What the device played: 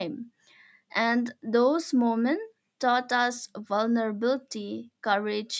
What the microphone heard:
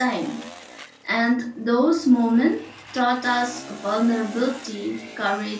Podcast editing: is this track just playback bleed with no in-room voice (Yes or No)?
Yes